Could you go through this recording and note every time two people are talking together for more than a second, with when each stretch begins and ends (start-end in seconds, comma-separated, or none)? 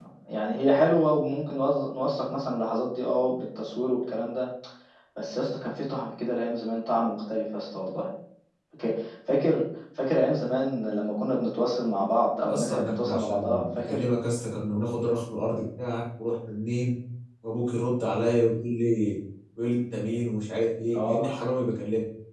12.5-14.0